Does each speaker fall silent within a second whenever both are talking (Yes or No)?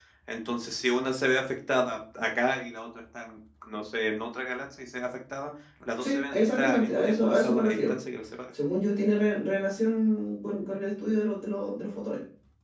No